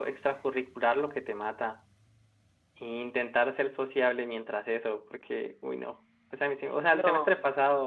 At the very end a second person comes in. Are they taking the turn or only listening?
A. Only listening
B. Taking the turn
A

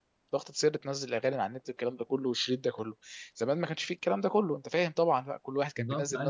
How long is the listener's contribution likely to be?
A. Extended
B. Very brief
A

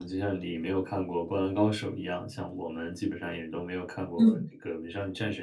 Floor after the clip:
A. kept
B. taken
A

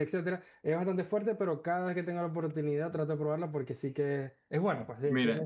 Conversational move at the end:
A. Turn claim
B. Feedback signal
A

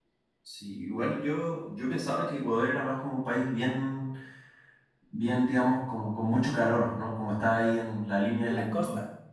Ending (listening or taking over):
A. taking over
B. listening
A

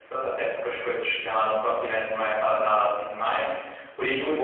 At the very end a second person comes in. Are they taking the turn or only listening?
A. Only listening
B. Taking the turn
B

